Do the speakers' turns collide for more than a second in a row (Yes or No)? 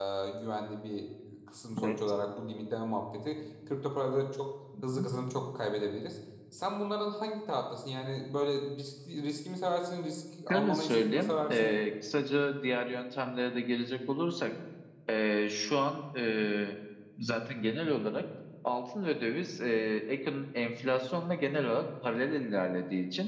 Yes